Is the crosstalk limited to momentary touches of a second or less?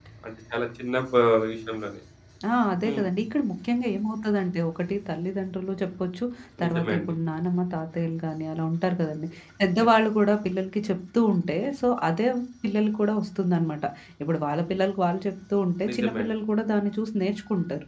Yes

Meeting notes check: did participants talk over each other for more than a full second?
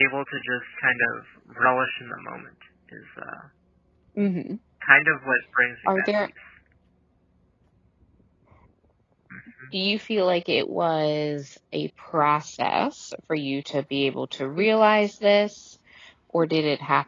No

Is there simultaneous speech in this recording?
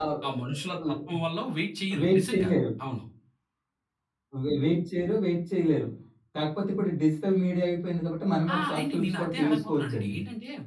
Yes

